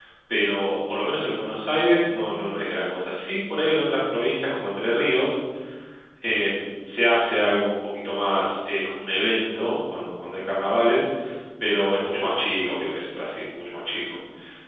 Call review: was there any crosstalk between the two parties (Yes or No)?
No